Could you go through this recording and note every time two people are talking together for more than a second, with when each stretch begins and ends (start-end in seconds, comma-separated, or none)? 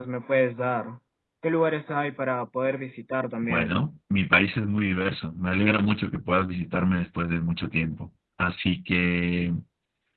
none